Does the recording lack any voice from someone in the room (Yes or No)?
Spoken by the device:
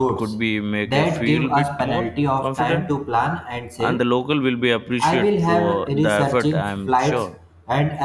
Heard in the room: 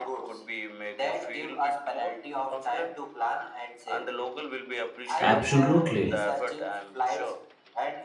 No